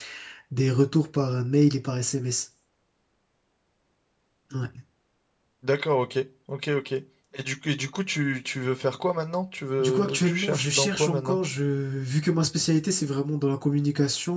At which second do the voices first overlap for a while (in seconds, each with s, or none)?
9.8 s